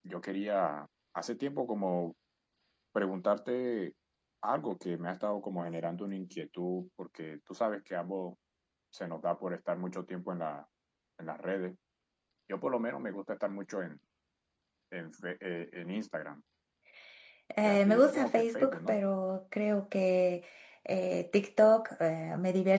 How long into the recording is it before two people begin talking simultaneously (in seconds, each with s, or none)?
17.6 s